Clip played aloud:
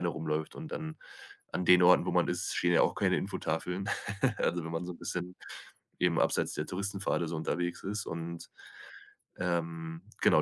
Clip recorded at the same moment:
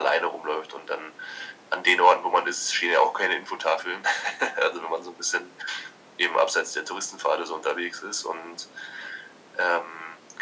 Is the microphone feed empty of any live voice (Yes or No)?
Yes